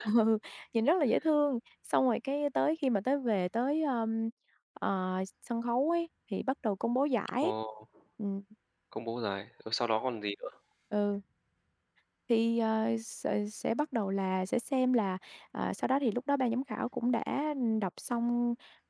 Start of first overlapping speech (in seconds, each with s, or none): none